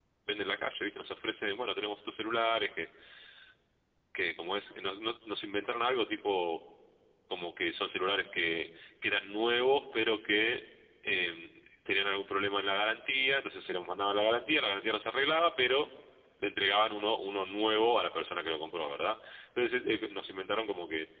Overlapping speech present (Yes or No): No